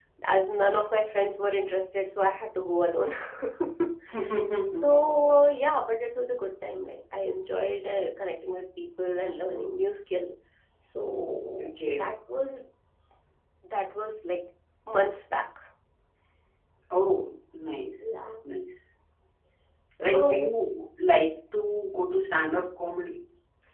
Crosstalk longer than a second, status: none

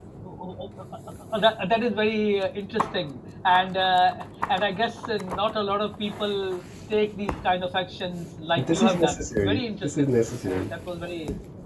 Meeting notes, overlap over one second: present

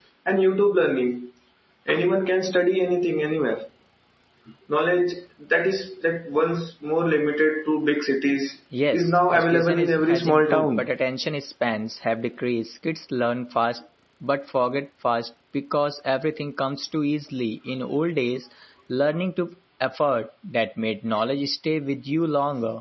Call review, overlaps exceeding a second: present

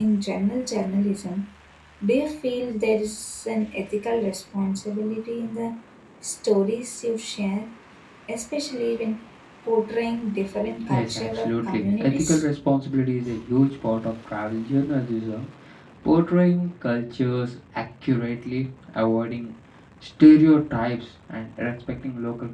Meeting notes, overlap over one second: present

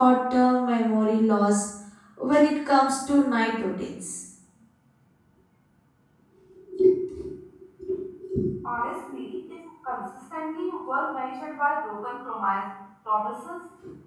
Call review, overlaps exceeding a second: none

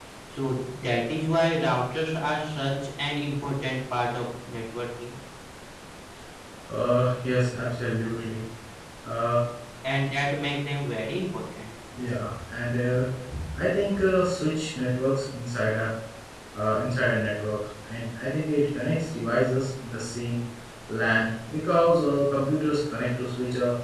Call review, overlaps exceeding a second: none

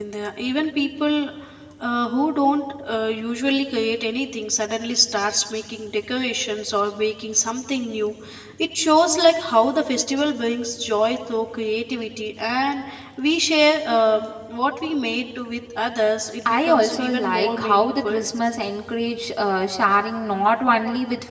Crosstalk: present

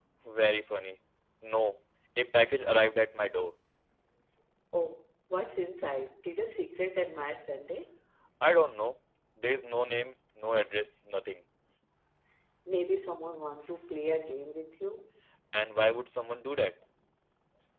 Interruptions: none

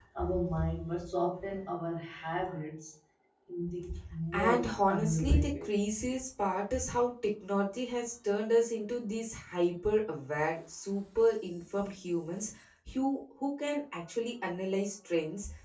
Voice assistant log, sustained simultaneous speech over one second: present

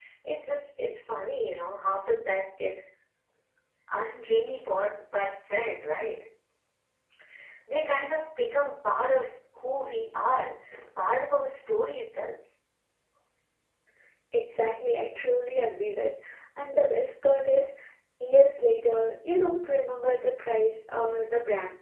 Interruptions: none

